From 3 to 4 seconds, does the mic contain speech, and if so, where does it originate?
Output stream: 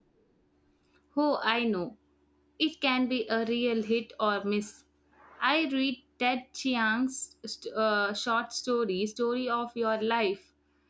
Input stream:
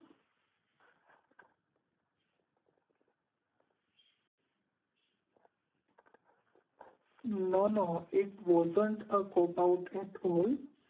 neither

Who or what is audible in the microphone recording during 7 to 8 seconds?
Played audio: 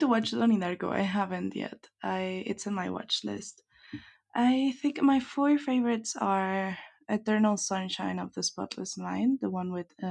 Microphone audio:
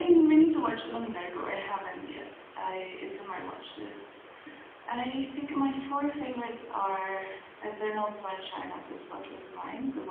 echo only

